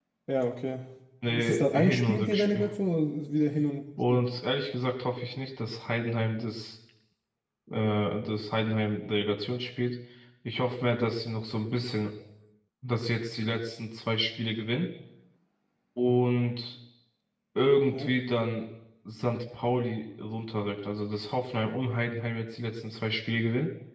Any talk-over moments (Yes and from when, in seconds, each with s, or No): Yes, from 1.4 s